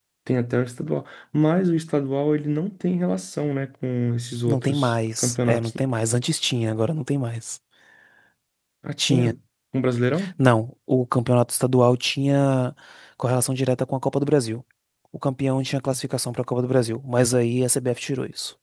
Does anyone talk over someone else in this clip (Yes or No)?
Yes